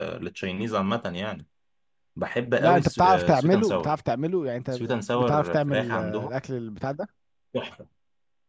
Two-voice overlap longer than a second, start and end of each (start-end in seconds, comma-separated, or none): 2.6-3.9, 4.7-6.3